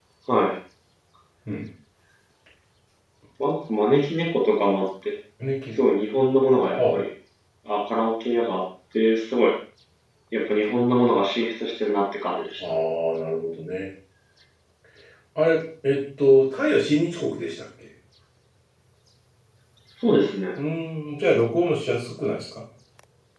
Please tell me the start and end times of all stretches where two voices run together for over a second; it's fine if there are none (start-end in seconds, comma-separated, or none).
none